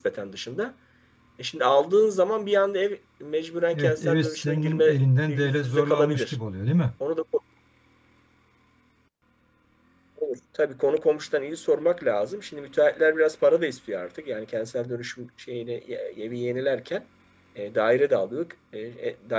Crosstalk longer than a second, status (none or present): present